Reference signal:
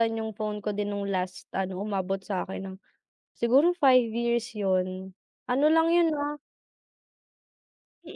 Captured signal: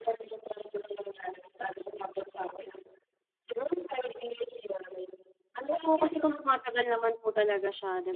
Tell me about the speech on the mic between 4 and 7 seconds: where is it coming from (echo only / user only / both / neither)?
both